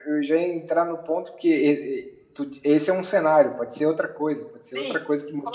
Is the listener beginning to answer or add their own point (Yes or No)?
Yes